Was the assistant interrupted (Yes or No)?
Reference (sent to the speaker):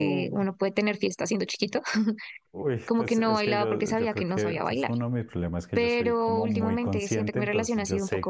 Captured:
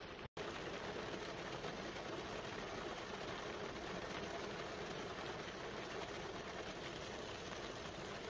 No